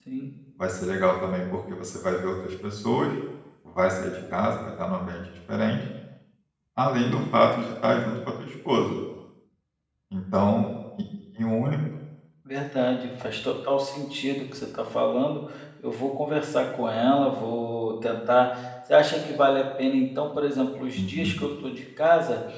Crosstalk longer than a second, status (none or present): none